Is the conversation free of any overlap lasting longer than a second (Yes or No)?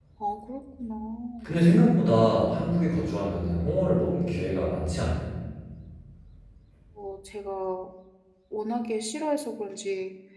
Yes